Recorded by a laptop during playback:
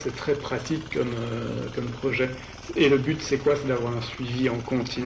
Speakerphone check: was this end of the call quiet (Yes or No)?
Yes